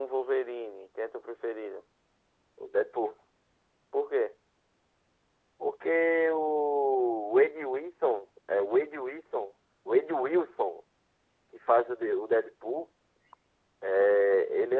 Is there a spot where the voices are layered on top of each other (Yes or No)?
No